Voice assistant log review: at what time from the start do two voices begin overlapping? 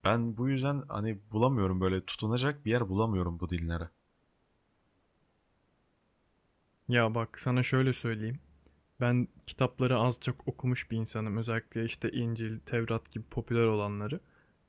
none

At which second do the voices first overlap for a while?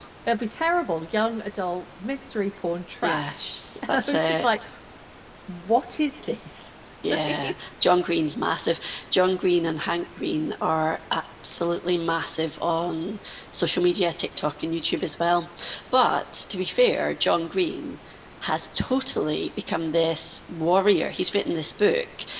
3 s

